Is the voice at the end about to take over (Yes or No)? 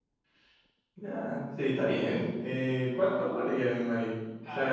Yes